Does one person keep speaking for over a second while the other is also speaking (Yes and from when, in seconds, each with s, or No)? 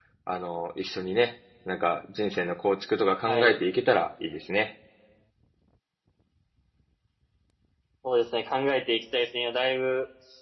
No